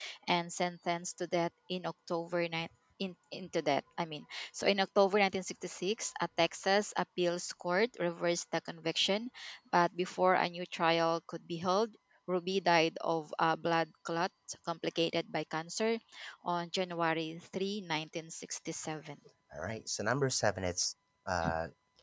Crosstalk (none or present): none